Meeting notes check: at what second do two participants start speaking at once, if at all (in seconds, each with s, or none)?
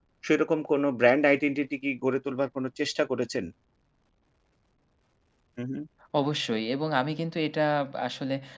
none